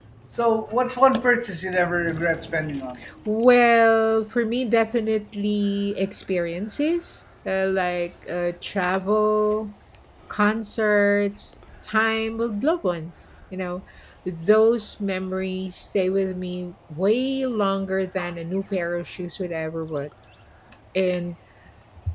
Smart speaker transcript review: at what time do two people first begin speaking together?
none

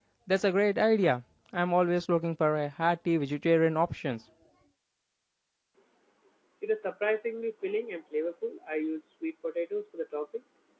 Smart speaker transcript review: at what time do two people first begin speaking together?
none

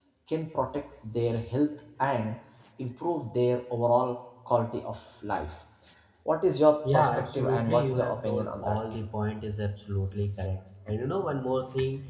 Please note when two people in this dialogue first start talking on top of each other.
7 s

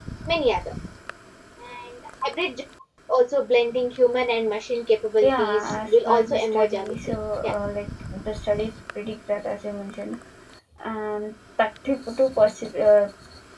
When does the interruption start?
5 s

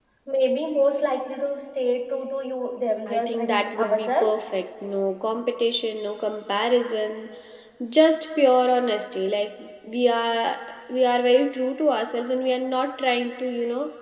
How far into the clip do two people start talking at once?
3 s

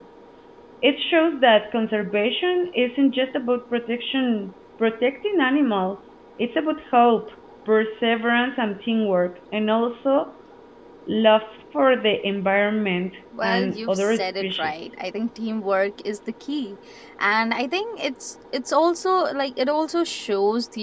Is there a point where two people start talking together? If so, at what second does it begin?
13 s

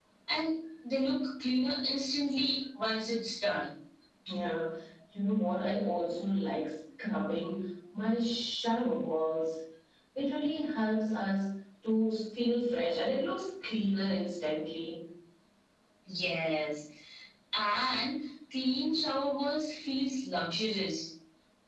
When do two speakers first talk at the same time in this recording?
none

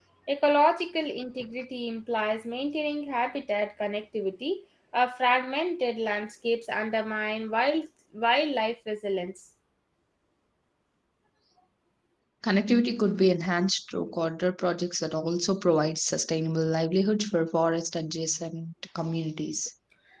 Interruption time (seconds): none

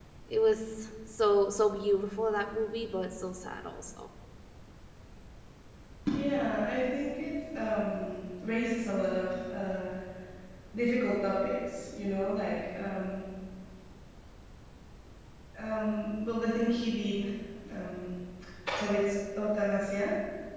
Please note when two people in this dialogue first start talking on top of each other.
none

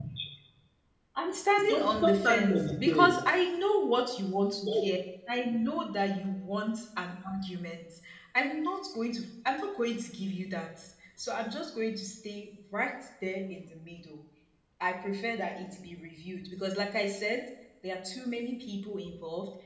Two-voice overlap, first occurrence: 2 s

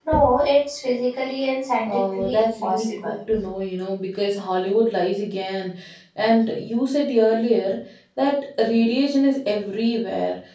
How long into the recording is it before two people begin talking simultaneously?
2 s

